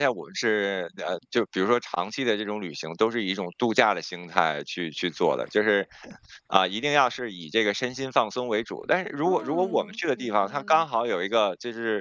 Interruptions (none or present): present